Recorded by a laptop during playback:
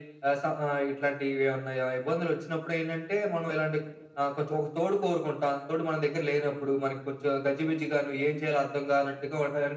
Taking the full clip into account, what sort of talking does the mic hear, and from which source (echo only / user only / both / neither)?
echo only